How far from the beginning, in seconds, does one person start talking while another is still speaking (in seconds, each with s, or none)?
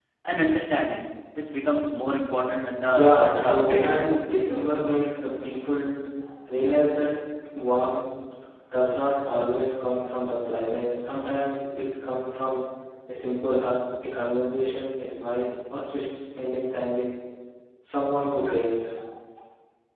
2.9 s